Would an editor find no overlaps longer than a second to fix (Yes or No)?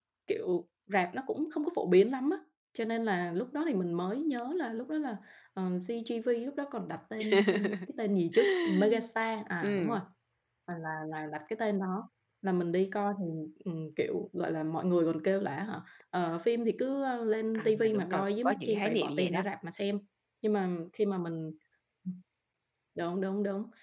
No